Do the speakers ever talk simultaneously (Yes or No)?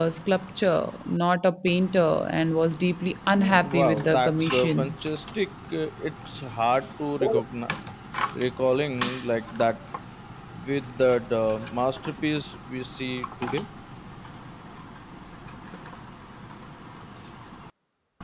Yes